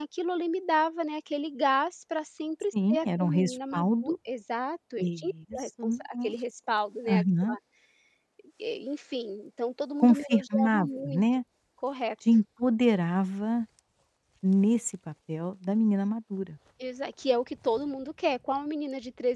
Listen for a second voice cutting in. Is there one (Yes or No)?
Yes